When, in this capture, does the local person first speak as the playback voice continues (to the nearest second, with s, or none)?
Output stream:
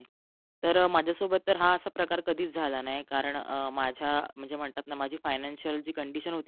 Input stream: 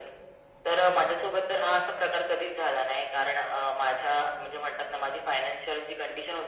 none